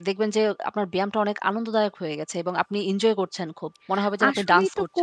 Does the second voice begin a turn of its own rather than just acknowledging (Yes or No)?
Yes